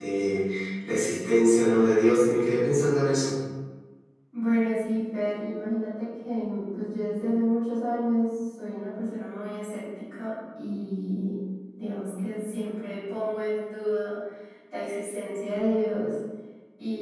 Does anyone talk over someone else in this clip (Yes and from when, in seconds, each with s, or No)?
No